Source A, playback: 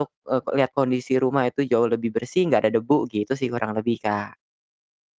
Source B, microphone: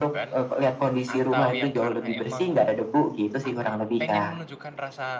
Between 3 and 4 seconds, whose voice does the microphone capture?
both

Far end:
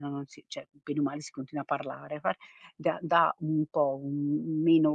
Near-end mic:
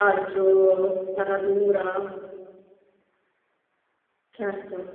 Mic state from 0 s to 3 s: user only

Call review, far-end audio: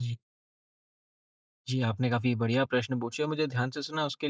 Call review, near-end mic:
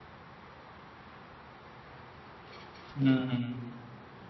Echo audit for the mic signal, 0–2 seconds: neither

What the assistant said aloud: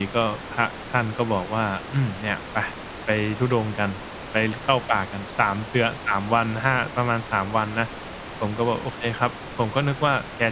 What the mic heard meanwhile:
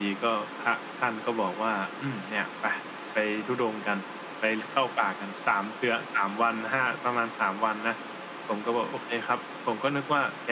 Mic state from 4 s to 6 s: echo only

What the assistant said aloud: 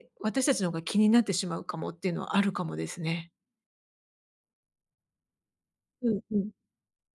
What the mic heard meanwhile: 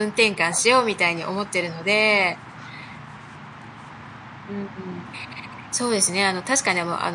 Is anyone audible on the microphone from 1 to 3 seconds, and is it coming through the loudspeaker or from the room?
user only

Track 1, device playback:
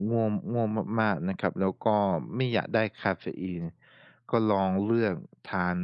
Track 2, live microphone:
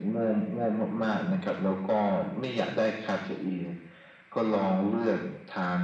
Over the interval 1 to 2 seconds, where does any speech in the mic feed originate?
echo only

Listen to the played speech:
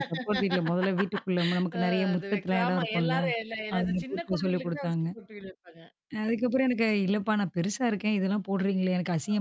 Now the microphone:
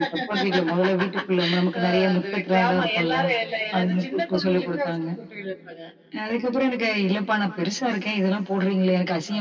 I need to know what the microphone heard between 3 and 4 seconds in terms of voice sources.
echo only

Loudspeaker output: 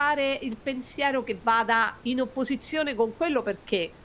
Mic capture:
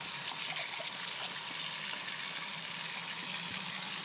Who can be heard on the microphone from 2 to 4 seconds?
neither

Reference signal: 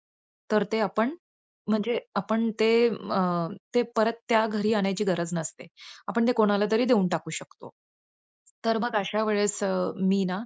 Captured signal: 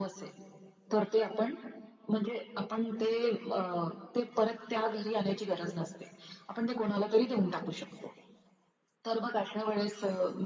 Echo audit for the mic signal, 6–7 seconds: echo only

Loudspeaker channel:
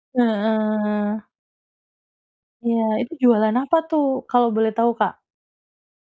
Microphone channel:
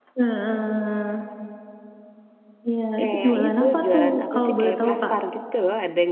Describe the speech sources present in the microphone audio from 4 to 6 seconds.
both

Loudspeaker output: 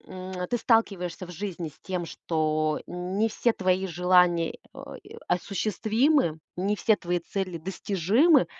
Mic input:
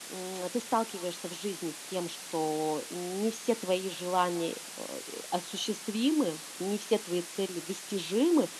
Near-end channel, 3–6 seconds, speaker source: echo only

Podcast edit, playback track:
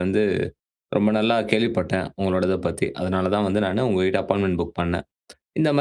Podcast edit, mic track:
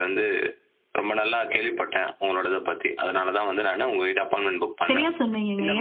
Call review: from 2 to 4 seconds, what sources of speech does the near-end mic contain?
echo only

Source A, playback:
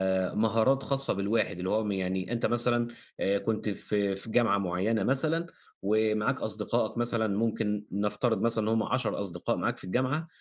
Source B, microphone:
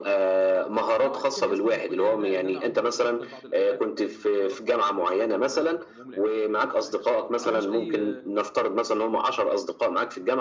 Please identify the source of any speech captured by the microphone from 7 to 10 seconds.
both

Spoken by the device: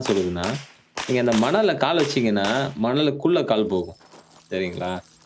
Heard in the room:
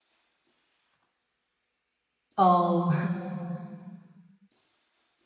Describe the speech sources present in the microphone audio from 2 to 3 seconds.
user only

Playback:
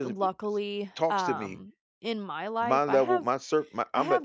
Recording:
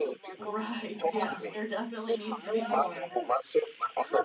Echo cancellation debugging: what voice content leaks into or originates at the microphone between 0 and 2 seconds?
both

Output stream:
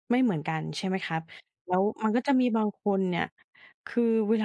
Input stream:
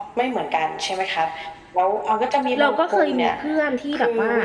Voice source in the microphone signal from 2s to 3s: both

